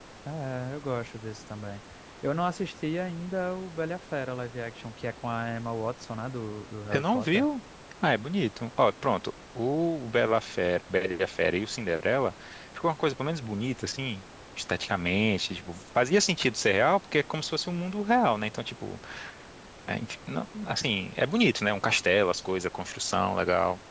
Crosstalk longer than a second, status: none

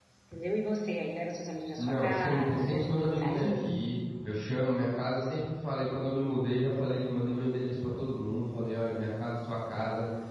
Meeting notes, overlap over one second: present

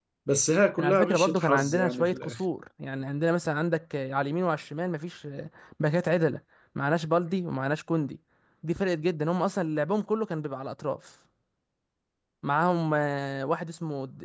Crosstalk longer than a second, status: present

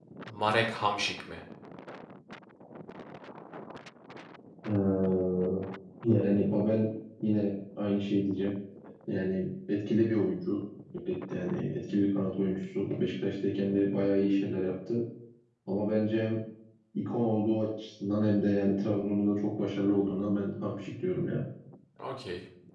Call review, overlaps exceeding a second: none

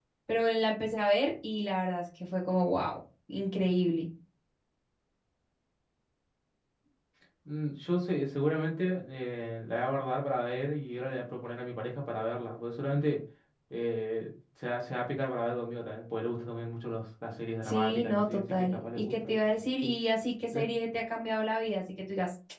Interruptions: present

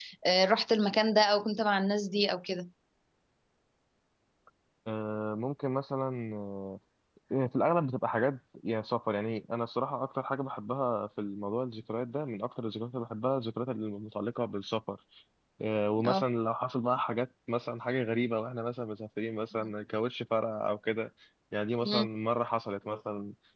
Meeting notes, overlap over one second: none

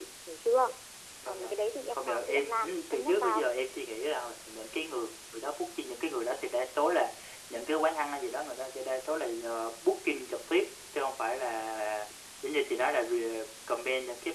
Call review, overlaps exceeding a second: present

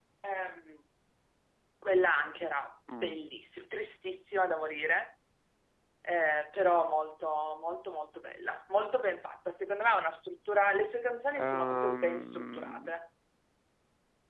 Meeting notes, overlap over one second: present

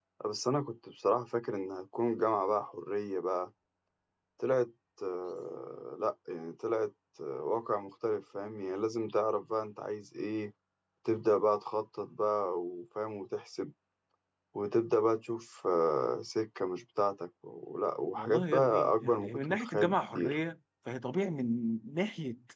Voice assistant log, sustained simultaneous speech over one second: present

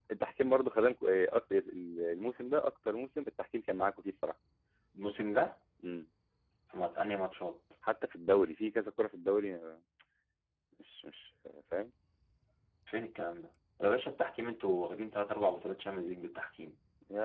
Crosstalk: none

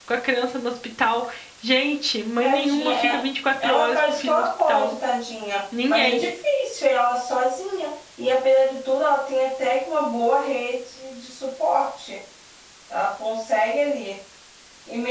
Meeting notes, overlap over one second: present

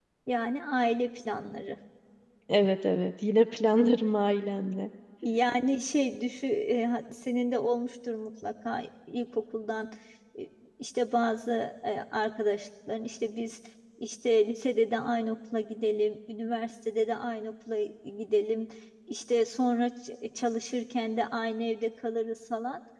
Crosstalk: none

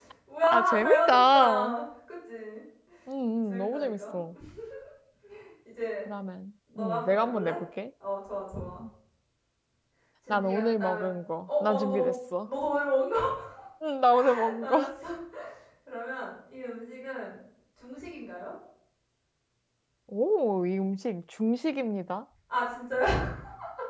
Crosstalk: present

